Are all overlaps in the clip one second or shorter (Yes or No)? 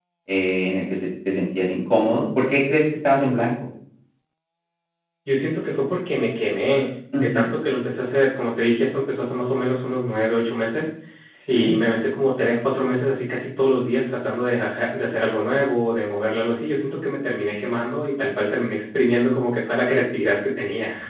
Yes